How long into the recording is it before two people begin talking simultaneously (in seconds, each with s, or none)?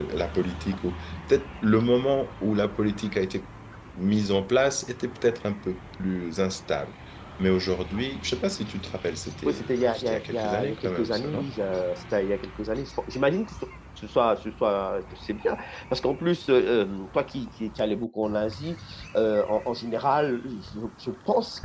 9.5 s